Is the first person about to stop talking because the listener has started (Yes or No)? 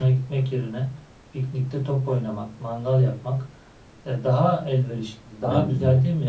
No